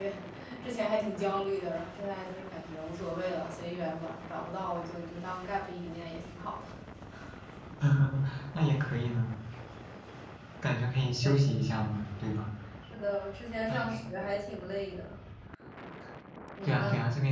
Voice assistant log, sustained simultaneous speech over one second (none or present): none